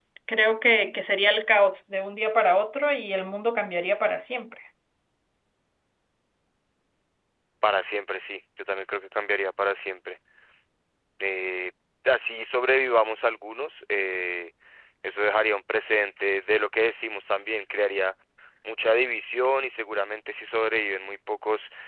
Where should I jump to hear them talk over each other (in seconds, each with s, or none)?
none